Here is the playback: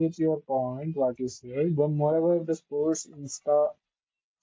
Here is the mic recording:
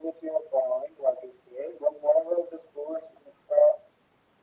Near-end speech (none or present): none